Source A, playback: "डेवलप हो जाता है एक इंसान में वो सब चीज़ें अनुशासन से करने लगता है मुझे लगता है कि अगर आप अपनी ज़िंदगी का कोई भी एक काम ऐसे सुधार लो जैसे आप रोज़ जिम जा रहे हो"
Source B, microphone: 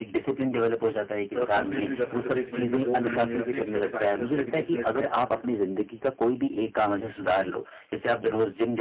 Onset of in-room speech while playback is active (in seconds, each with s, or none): 1.3 s